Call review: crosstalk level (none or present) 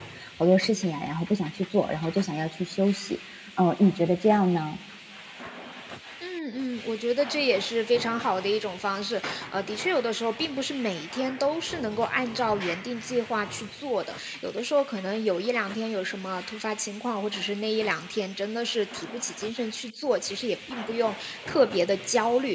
none